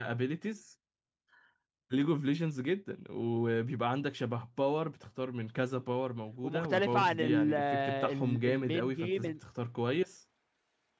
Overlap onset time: 6 s

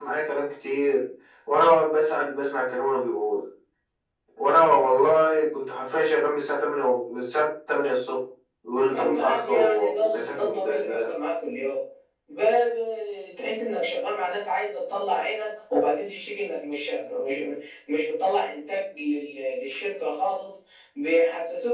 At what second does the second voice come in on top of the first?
9 s

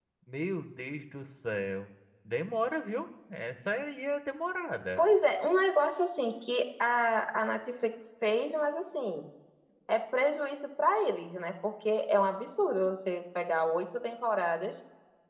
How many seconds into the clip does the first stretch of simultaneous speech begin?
none

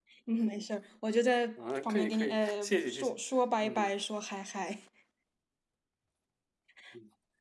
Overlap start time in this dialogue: 2 s

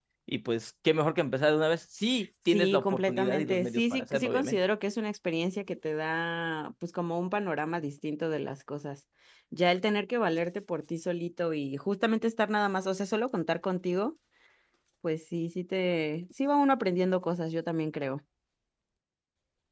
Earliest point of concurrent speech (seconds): 3 s

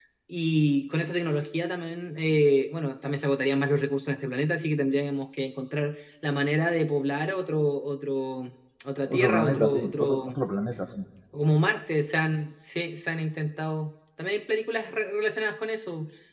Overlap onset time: 9 s

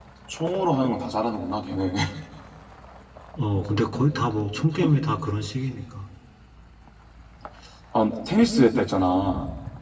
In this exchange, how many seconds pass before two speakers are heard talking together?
none

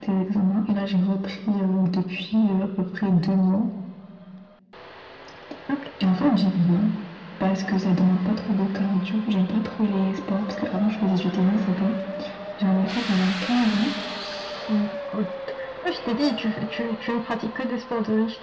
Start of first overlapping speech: none

